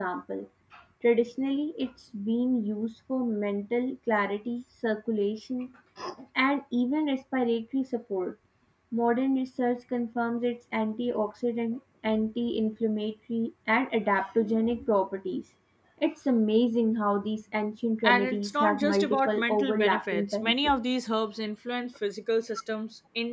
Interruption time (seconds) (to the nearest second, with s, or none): 18 s